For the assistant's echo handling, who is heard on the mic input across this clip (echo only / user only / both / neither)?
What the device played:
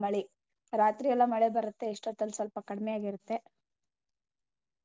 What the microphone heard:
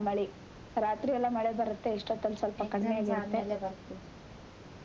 both